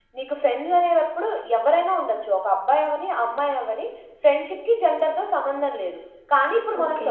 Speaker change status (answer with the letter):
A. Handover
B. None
B